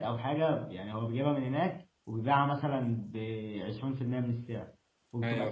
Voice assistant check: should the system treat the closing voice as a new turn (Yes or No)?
No